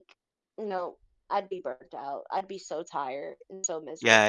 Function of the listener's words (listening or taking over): taking over